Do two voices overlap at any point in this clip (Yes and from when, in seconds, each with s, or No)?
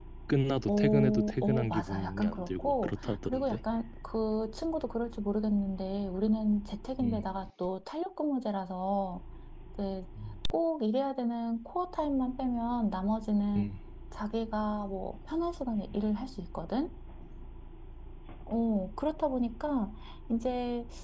Yes, from 0.7 s